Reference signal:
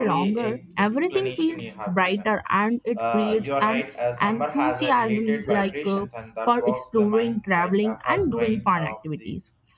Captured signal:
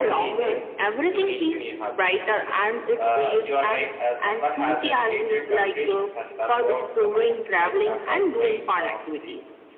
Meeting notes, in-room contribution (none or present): none